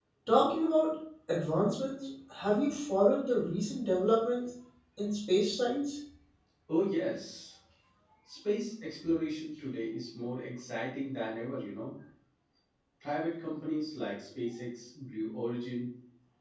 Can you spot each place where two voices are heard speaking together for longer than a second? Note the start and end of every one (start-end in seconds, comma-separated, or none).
none